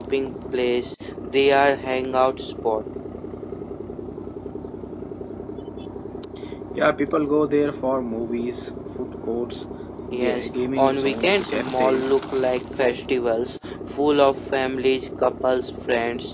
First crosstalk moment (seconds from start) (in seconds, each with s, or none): 10.2 s